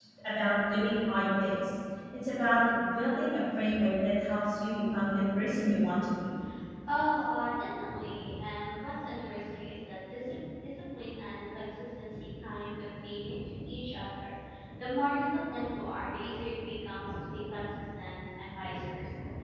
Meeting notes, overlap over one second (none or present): none